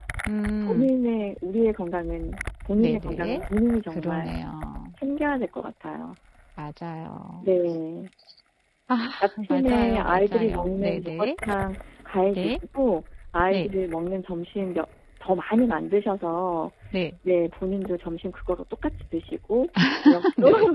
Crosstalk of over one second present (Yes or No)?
Yes